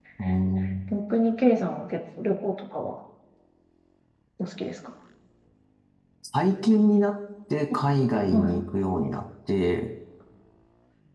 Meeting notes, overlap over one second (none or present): none